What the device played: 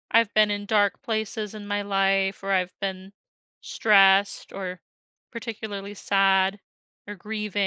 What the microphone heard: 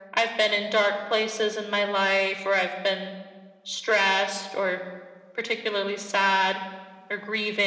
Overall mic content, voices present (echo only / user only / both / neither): echo only